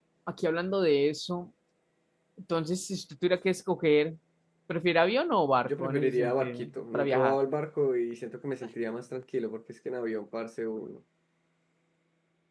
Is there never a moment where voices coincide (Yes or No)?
No